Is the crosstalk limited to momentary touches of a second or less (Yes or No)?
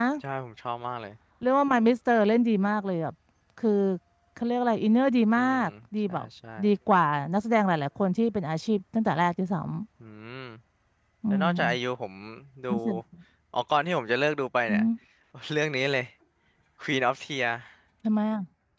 Yes